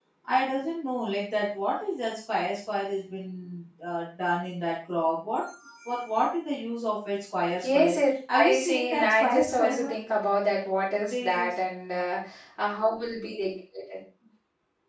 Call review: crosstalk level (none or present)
present